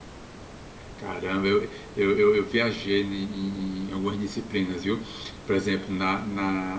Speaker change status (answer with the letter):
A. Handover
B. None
B